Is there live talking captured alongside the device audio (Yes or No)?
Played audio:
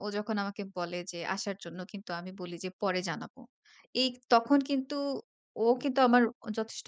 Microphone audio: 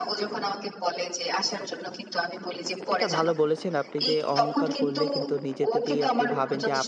Yes